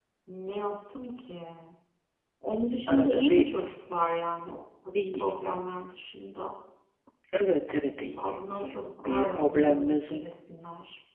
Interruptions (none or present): present